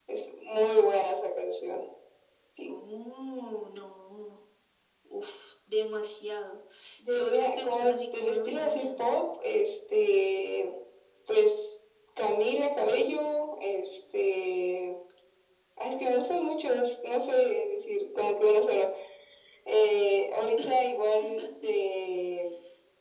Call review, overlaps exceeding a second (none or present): present